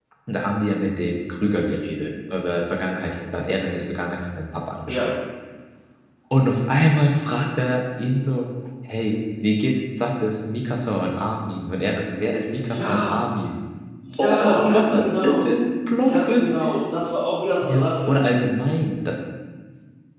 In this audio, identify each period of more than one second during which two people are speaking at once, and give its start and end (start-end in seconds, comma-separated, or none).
14.2-15.4